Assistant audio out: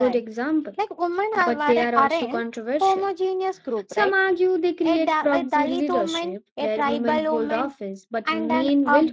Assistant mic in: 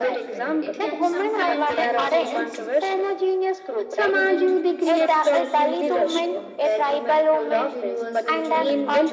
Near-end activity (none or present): present